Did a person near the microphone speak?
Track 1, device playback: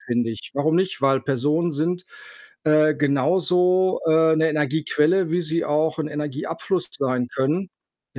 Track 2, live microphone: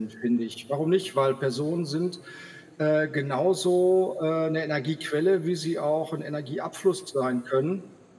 No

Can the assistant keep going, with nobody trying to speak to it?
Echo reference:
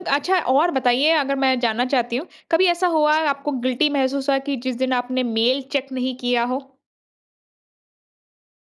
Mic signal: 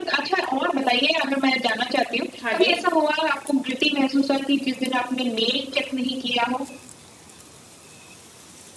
No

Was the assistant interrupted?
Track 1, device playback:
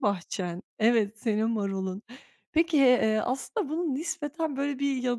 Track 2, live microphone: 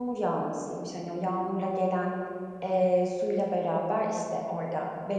Yes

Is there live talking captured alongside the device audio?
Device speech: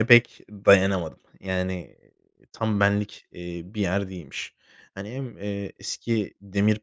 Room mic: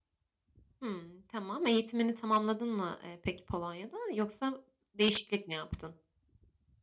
Yes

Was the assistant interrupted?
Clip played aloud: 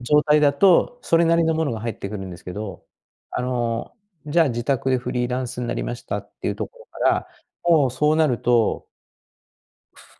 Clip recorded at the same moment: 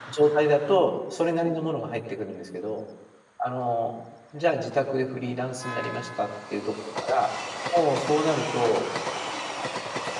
No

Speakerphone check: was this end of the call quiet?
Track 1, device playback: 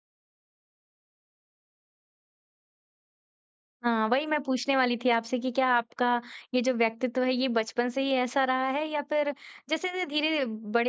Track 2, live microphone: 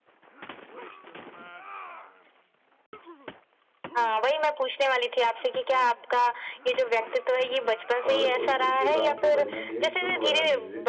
No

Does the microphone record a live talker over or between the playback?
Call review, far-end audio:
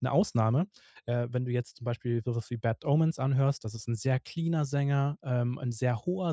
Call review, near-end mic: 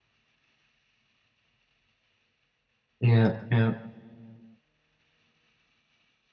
Yes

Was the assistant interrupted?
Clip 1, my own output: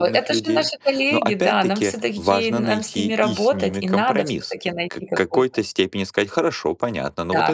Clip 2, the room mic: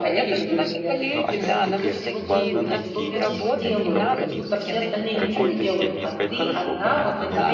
Yes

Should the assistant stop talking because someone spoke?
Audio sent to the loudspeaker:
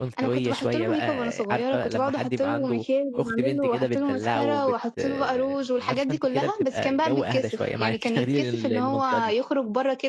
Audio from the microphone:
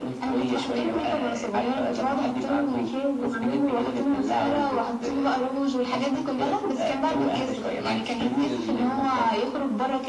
No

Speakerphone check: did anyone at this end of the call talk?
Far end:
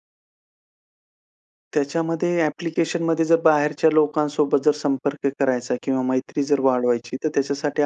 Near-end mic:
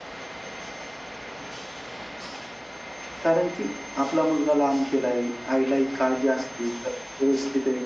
Yes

